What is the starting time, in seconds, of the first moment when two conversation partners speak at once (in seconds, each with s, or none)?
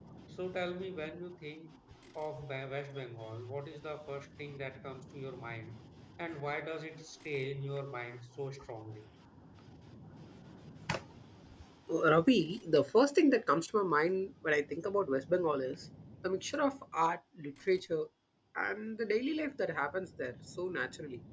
none